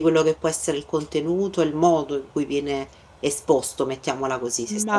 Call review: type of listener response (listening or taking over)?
taking over